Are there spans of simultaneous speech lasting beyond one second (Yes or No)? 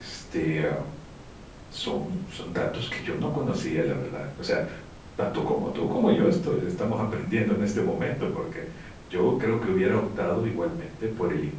No